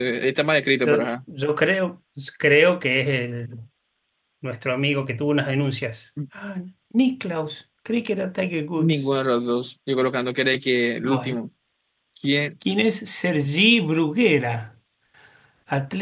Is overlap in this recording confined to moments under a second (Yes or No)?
Yes